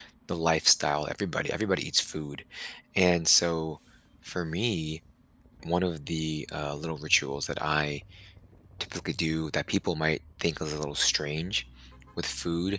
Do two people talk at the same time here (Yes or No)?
No